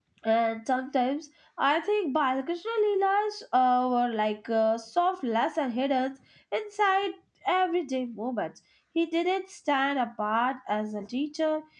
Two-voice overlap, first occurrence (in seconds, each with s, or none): none